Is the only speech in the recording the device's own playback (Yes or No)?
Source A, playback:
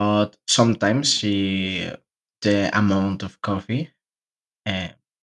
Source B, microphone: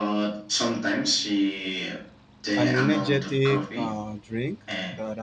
No